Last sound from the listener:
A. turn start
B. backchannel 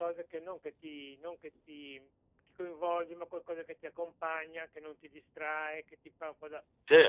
B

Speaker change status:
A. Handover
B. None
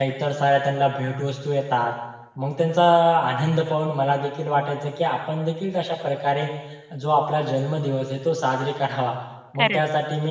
B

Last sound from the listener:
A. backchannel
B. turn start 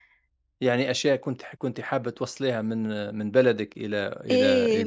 B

